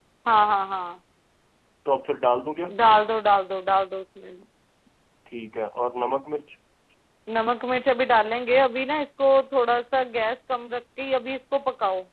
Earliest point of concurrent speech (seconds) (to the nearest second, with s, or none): none